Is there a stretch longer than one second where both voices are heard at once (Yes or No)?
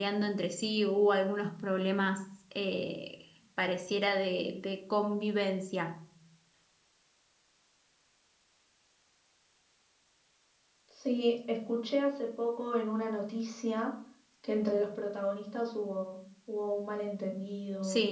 No